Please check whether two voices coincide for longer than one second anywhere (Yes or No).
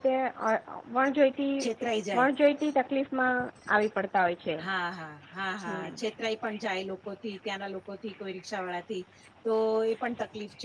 No